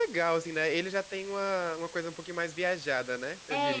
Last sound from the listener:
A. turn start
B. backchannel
A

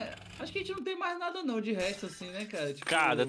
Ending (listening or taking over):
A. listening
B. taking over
B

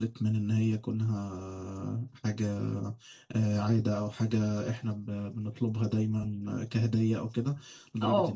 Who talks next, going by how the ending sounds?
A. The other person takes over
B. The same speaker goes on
B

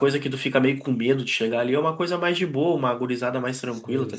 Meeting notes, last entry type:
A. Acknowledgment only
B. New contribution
B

